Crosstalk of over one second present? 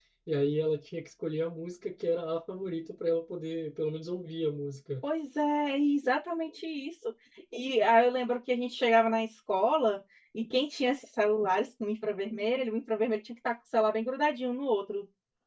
No

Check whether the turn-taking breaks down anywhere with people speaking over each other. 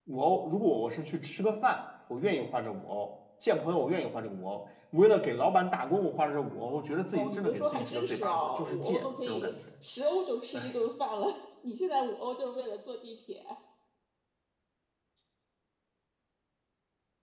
Yes, from 7.1 s

